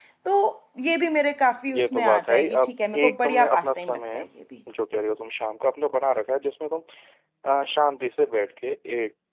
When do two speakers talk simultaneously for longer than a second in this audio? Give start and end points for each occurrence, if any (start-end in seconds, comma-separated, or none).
1.7-4.2